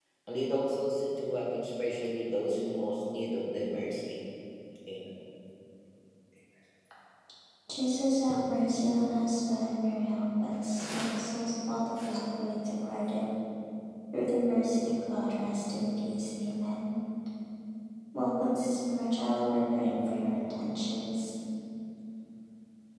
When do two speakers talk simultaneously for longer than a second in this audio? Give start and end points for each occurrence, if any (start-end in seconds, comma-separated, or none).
none